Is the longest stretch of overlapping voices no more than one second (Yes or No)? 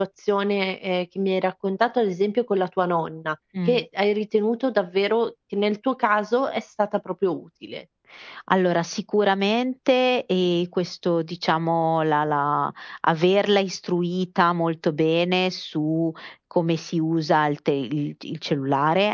Yes